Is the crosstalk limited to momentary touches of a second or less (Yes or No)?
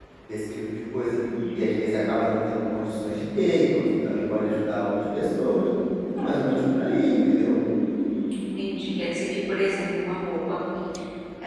Yes